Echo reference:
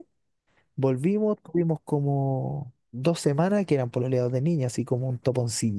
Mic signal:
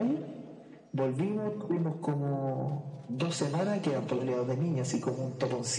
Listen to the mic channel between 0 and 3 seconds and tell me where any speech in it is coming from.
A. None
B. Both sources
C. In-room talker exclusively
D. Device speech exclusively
D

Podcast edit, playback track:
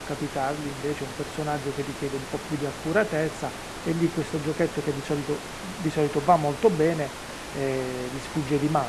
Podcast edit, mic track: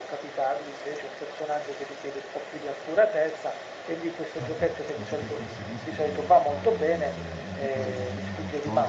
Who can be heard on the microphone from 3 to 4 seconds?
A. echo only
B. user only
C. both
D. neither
A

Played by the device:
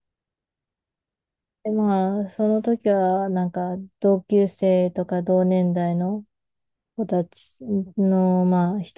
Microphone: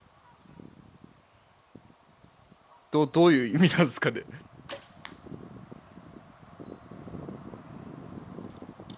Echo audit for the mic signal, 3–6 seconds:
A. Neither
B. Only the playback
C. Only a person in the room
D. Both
C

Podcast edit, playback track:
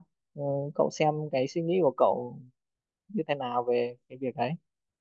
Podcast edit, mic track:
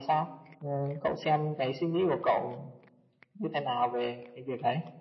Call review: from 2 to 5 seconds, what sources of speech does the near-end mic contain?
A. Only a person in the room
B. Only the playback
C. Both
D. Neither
B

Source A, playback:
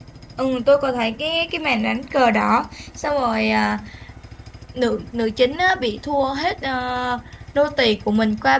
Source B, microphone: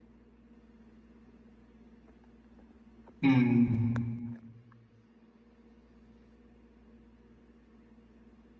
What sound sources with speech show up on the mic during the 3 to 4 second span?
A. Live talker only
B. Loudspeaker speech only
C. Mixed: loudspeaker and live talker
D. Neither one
A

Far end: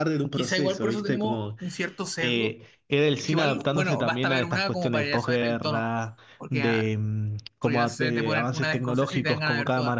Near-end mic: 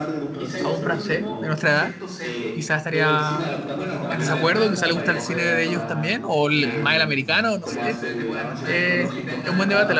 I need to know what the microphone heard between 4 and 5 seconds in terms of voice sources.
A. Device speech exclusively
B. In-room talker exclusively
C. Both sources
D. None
C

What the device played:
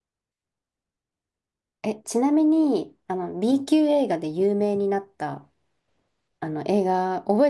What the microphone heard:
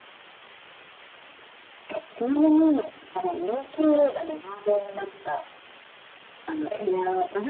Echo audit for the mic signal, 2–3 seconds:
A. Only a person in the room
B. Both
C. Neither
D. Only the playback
D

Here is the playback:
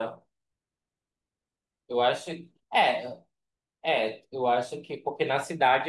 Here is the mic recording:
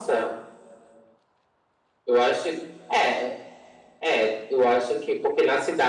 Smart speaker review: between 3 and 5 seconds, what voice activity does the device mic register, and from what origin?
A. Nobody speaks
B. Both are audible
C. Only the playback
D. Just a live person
C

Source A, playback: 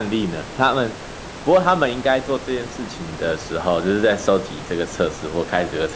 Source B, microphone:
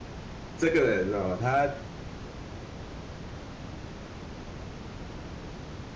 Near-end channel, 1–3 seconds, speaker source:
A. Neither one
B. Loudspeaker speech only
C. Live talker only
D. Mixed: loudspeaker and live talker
C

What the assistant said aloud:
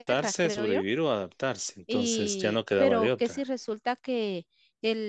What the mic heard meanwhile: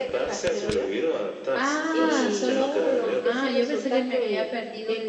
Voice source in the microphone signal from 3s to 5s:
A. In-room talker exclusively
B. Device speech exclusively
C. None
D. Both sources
D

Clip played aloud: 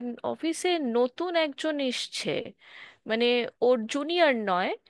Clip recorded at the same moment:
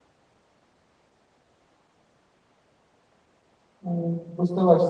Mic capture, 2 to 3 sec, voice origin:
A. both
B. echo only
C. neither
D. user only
C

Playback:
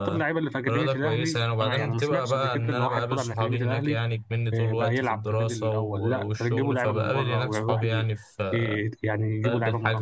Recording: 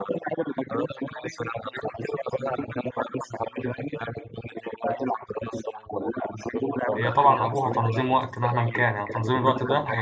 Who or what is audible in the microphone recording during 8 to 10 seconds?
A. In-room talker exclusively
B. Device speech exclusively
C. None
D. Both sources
D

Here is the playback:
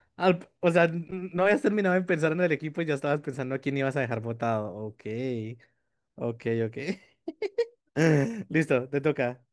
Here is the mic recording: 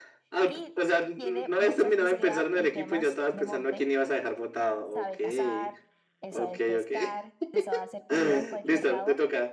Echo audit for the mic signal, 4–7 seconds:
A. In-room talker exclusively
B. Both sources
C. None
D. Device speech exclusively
B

